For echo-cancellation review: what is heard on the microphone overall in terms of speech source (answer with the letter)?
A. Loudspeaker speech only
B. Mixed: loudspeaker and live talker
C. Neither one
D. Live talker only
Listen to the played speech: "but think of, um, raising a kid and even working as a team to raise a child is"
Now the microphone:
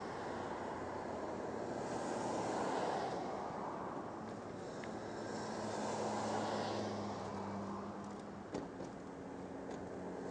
C